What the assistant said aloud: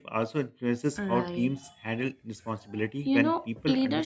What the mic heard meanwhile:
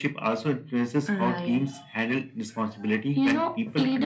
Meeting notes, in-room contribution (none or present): none